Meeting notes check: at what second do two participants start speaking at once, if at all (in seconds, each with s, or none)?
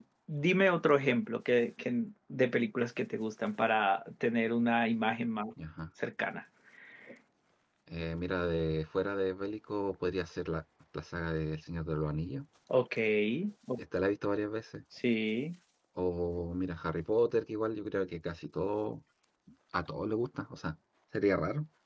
none